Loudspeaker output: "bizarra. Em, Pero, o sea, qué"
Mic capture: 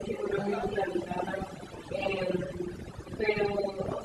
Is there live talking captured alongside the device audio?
Yes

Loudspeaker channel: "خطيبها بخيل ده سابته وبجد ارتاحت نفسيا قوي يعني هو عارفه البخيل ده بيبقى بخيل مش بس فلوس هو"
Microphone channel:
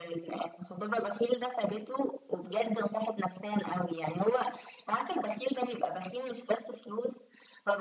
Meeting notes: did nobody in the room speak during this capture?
Yes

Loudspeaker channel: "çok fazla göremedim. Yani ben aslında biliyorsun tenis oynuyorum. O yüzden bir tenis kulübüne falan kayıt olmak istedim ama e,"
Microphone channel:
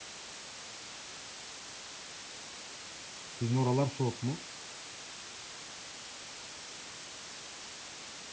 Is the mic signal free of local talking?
No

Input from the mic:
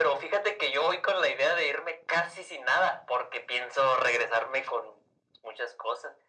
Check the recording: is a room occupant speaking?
No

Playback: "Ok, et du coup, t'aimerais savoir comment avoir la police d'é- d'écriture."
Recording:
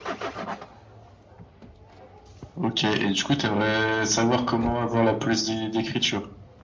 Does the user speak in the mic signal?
No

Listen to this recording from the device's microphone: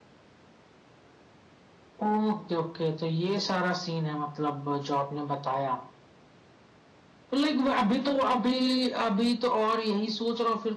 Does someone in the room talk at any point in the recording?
No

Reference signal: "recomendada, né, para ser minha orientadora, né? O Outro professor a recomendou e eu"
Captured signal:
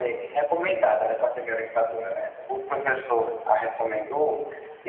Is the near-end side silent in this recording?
Yes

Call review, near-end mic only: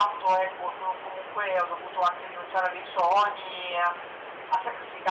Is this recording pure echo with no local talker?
Yes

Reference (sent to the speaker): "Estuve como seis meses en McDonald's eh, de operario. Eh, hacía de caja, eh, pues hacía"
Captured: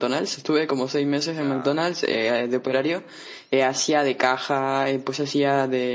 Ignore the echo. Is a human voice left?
Yes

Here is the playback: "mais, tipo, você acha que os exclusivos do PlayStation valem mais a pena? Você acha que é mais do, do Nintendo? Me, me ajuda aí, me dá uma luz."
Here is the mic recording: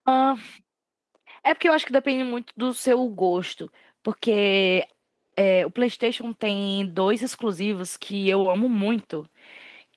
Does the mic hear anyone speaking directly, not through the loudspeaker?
Yes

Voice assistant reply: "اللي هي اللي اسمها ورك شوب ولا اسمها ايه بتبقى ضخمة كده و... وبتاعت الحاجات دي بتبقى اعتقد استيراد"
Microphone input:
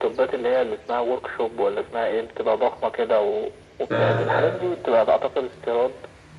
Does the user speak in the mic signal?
Yes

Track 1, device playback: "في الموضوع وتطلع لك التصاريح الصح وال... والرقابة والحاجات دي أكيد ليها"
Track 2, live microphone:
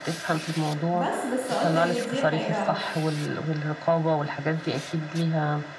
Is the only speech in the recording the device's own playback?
No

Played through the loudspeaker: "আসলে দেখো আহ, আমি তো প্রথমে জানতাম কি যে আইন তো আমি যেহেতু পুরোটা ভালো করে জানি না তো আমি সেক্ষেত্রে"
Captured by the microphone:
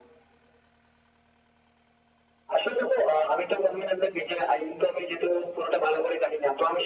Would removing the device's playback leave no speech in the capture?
Yes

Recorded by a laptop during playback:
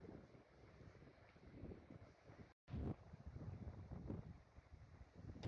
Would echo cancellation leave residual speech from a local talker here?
No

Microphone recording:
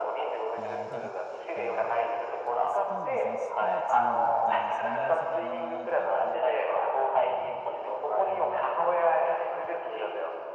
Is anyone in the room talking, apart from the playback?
Yes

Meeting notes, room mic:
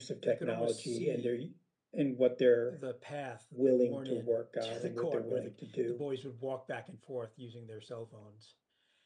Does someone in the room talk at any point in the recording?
Yes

